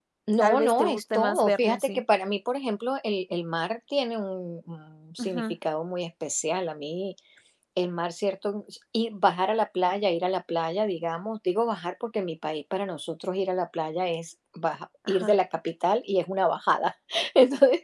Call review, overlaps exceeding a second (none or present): present